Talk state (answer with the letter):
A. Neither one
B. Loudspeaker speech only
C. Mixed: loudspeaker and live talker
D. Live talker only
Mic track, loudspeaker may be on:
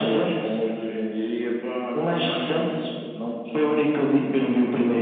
B